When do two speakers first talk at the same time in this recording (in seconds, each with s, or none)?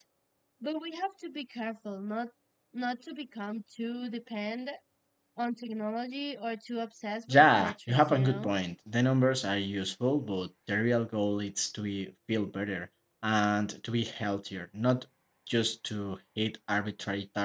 7.3 s